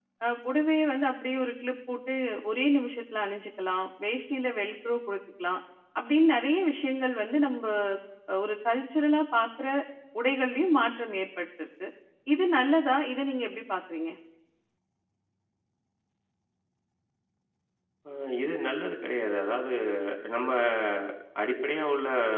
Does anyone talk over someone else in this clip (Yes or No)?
No